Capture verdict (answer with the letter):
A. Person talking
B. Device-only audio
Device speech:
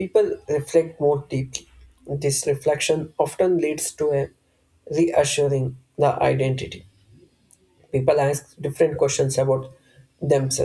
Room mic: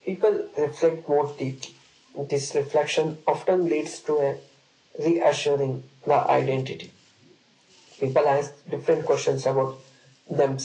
B